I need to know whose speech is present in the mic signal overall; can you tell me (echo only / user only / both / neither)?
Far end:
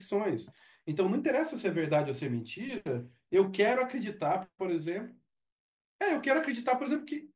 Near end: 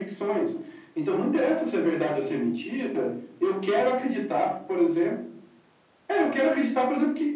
echo only